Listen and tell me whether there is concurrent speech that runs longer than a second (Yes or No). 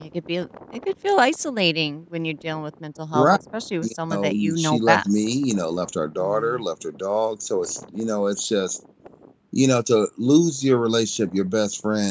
Yes